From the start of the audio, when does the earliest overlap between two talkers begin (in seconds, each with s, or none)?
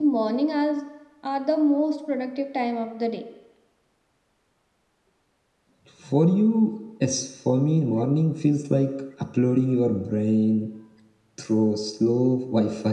none